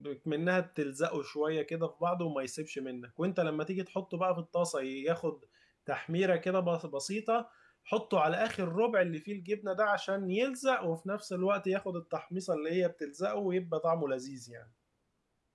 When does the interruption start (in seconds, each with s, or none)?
none